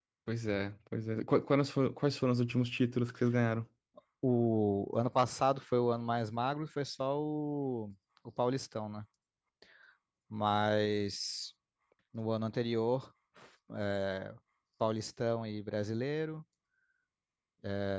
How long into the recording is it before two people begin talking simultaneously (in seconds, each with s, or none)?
none